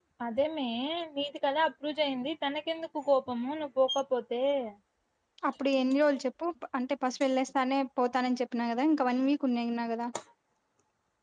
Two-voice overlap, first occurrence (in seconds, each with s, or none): none